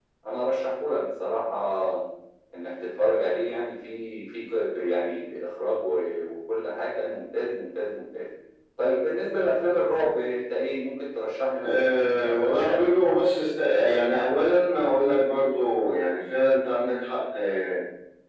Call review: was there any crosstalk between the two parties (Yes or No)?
Yes